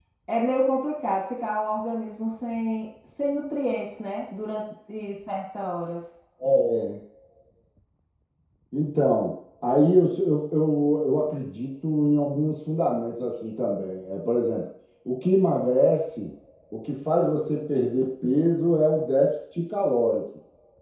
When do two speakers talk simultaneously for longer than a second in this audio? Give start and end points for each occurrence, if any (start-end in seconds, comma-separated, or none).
none